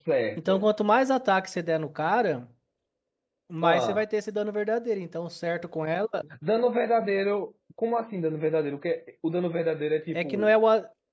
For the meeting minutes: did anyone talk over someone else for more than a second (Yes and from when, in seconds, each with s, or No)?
No